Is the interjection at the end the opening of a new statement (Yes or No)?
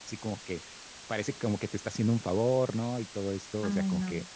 No